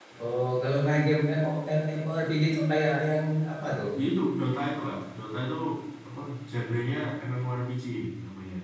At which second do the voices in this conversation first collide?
none

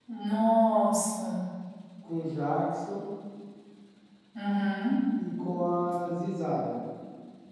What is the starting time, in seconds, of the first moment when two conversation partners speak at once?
none

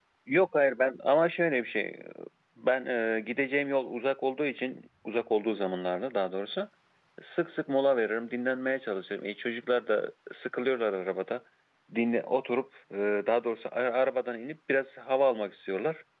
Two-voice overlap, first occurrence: none

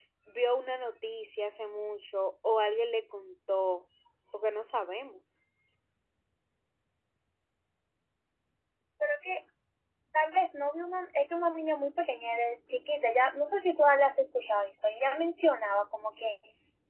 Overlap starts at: none

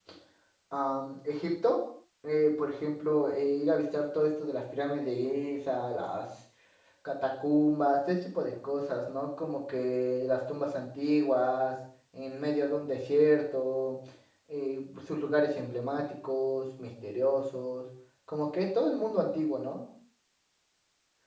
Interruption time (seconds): none

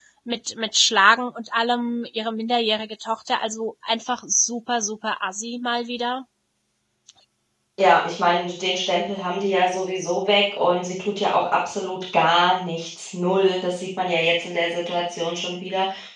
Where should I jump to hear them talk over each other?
none

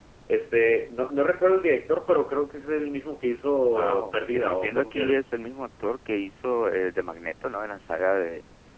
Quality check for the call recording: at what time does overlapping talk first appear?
3.7 s

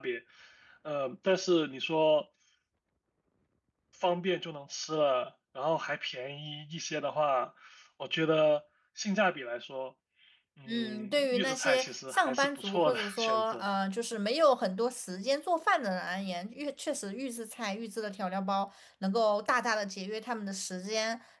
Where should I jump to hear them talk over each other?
10.7 s

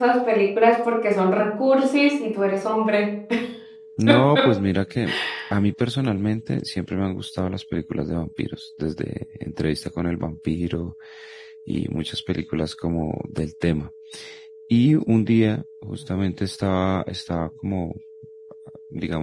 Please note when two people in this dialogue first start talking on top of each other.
none

